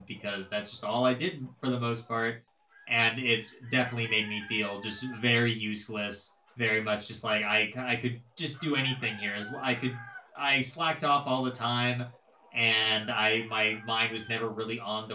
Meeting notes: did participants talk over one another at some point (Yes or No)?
No